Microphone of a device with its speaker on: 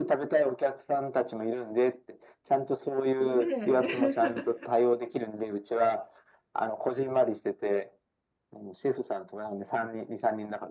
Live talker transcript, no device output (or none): ねえ。